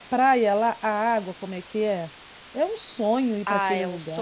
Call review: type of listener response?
taking over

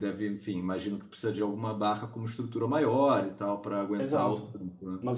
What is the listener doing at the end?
taking over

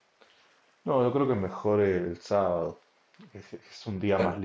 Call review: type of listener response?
listening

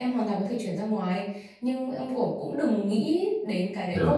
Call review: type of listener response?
listening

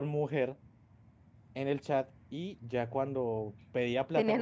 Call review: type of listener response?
listening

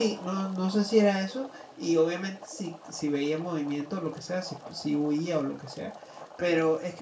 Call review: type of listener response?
listening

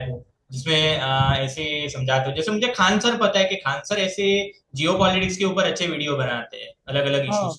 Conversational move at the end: taking over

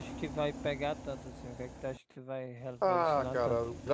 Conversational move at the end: taking over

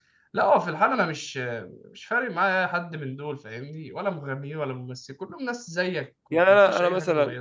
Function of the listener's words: taking over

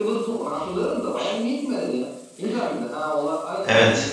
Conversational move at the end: taking over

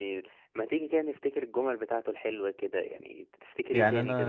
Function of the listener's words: taking over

